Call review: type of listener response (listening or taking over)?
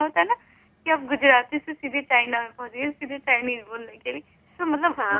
listening